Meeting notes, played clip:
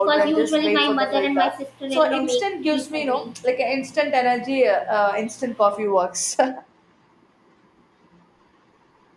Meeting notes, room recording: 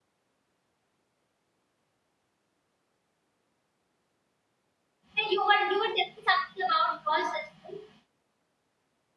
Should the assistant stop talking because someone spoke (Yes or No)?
Yes